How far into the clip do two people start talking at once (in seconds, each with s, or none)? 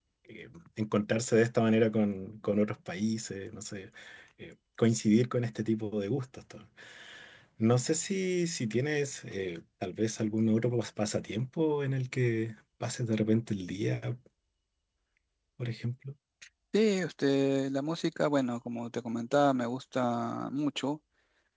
none